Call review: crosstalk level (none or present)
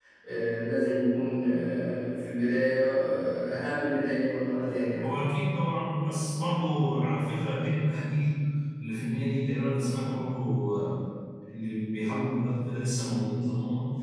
none